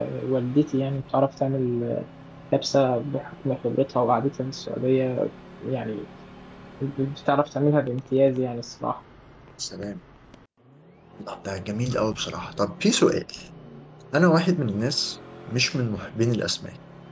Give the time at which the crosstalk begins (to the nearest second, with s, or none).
none